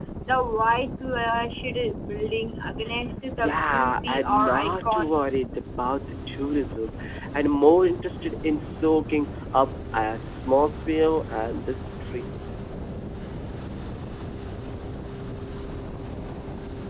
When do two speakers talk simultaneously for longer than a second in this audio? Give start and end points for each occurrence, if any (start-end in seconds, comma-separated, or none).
3.4-5.2